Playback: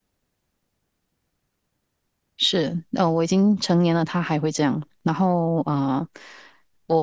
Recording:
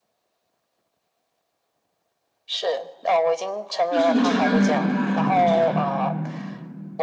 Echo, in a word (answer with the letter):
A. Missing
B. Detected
B